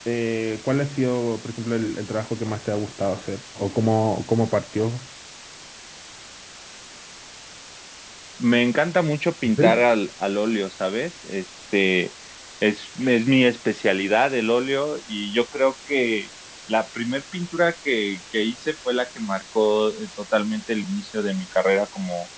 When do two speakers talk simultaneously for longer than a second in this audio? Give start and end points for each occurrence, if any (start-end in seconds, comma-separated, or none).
none